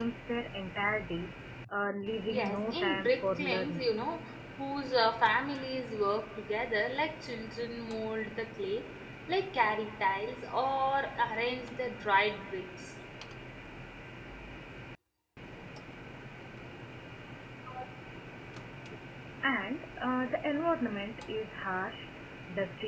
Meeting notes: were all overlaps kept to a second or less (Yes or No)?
No